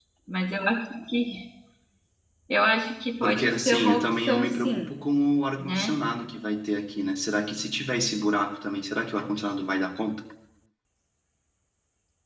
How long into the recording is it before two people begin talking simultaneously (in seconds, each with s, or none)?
3.2 s